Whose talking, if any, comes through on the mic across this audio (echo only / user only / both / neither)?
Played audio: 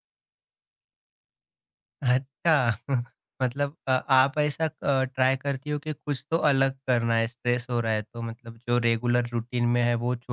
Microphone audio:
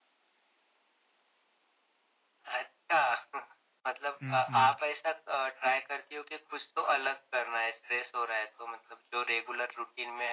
both